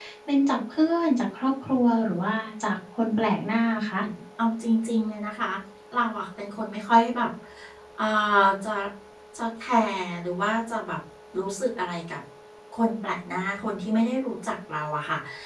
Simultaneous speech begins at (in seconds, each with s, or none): none